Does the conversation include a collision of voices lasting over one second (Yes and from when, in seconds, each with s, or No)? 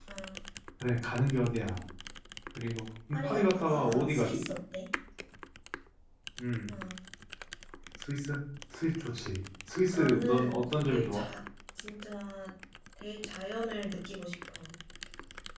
Yes, from 3.1 s